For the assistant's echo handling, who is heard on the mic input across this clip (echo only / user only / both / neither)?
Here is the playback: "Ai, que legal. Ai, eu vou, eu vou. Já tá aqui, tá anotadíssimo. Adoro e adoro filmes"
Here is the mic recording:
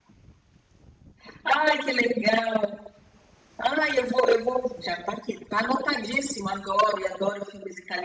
echo only